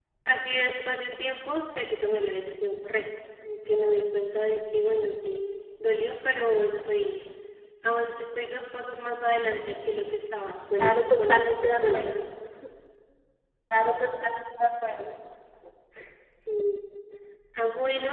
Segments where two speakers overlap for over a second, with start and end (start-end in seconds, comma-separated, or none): 10.8-12.0